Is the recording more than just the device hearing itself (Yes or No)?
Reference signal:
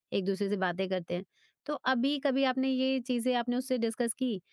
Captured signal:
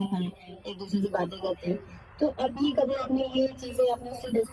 No